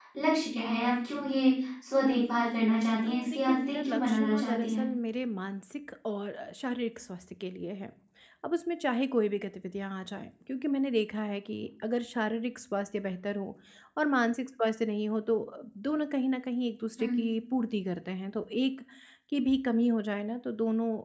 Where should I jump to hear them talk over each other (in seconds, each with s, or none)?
3.0 s